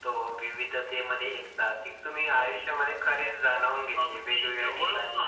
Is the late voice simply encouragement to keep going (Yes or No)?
No